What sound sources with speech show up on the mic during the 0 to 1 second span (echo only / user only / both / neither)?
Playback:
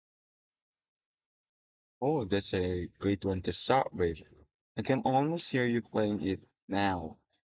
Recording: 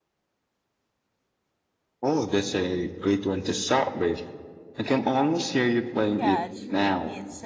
neither